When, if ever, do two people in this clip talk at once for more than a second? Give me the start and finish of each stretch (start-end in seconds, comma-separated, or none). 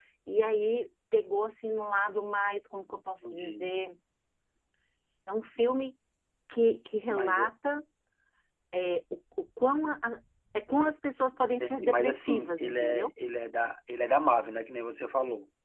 11.6-13.1